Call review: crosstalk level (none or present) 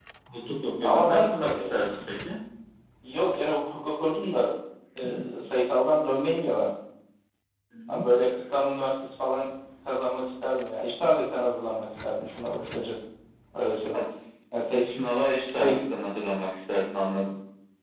present